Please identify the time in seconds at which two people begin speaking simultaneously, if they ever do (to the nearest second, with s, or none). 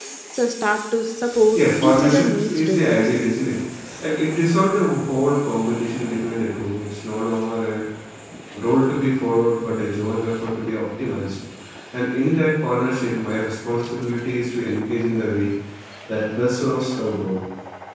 2 s